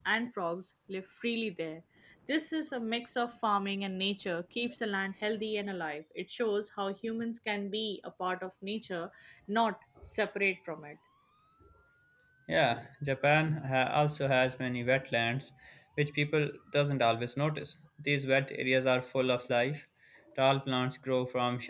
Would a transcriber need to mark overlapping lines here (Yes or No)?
No